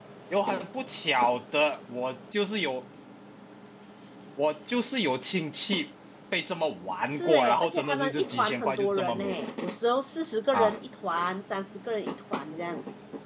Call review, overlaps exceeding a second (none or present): present